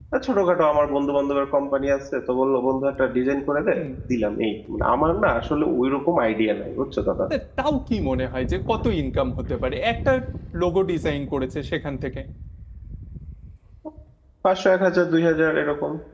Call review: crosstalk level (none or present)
none